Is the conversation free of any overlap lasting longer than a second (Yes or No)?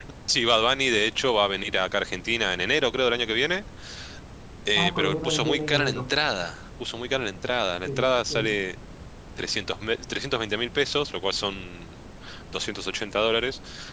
No